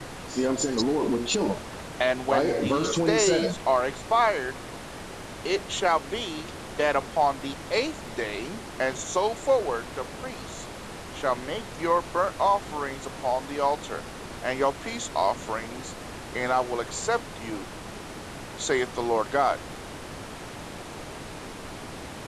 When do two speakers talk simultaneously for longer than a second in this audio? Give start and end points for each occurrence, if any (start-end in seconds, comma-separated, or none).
2.3-3.5